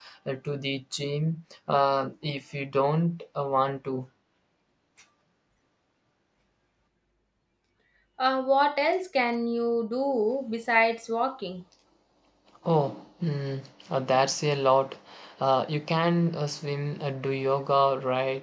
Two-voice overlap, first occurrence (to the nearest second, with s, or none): none